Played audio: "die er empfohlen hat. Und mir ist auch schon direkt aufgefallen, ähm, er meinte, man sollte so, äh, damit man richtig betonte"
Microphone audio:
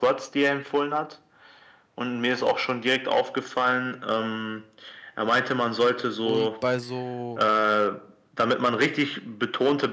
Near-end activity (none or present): present